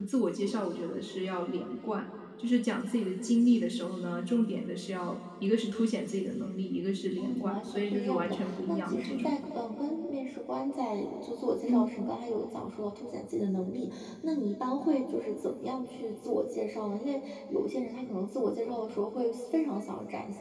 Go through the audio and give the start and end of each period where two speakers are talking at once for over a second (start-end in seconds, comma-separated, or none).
7.2-9.3